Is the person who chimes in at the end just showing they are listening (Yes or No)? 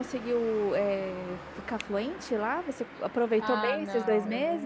No